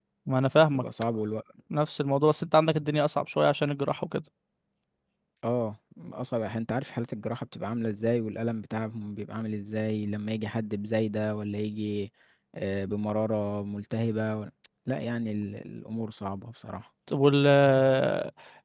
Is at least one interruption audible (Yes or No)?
No